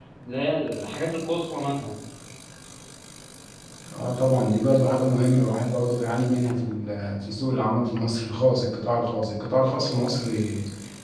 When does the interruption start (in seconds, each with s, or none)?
none